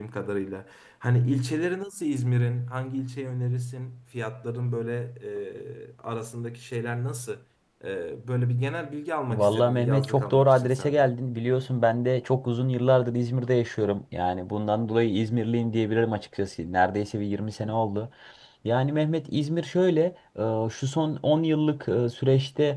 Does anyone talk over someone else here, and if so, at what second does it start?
9.3 s

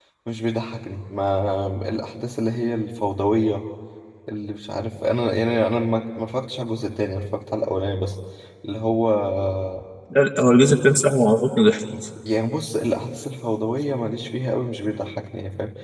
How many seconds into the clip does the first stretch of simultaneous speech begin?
none

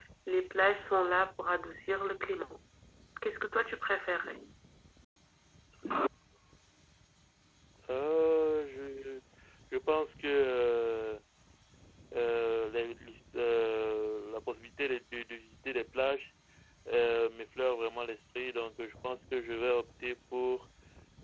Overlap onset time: none

